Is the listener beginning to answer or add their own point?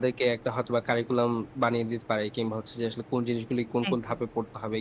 No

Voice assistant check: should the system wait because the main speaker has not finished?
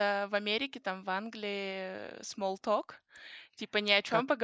Yes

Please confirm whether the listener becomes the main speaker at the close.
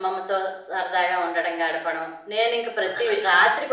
No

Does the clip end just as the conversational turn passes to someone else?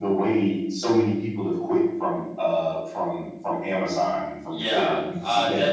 Yes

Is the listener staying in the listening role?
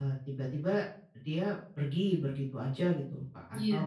Yes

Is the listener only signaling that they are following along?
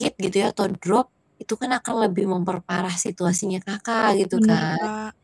No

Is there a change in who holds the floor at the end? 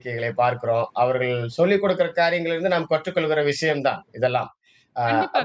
Yes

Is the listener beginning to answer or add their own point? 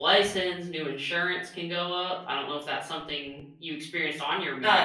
Yes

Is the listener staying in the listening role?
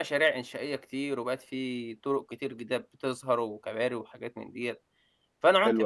Yes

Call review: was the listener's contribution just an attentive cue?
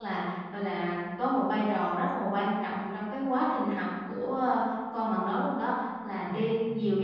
Yes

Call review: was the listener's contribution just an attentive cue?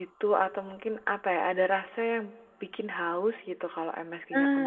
No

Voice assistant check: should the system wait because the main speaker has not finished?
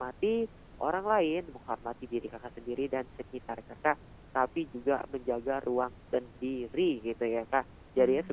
Yes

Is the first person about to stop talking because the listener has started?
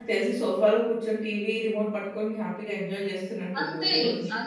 Yes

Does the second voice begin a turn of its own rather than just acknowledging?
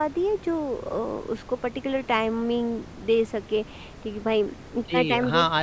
Yes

